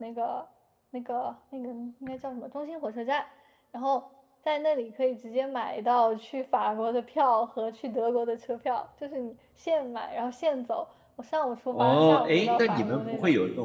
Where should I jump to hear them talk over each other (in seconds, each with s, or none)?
11.7 s